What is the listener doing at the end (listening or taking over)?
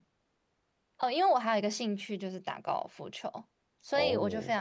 listening